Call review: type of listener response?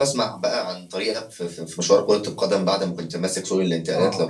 taking over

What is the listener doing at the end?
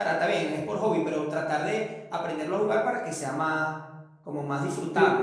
taking over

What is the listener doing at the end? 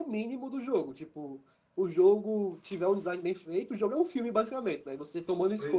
listening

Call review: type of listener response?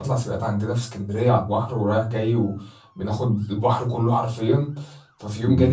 listening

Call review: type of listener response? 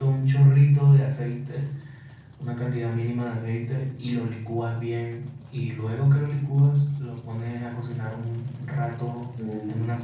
listening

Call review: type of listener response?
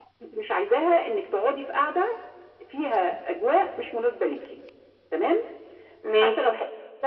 listening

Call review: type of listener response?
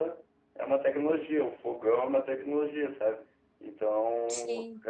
listening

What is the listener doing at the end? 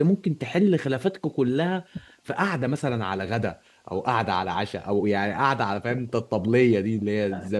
taking over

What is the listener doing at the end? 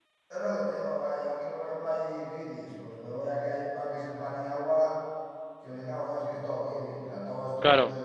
listening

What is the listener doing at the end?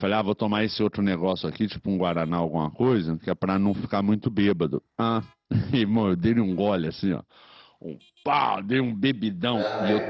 listening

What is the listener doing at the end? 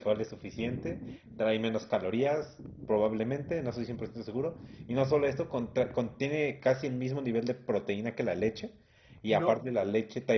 listening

